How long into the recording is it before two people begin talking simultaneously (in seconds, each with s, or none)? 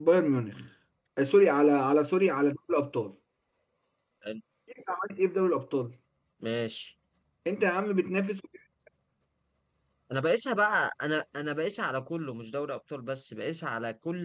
none